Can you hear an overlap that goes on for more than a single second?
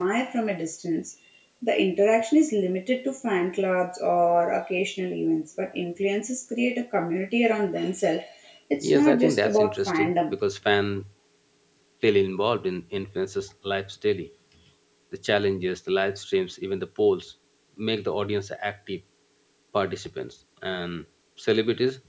Yes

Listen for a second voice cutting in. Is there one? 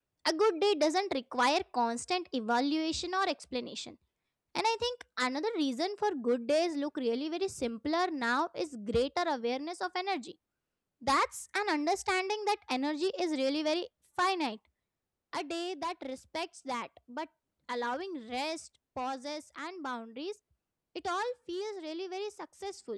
No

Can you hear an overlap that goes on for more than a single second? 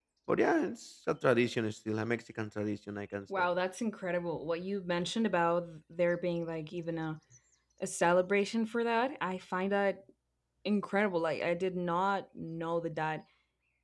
No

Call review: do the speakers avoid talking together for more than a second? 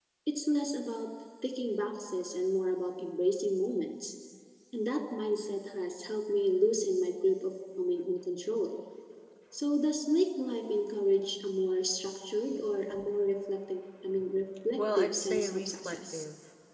No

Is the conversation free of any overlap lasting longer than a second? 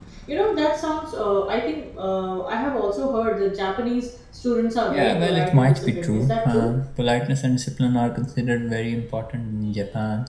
No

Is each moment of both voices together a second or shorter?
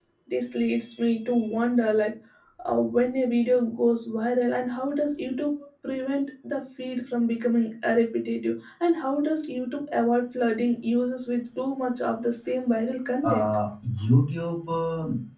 Yes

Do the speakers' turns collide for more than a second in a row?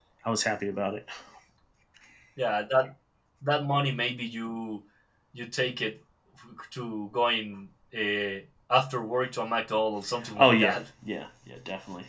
No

